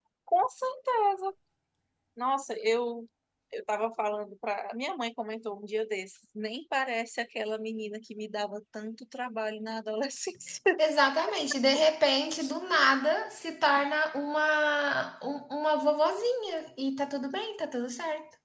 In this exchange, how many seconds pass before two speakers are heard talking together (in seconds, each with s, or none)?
none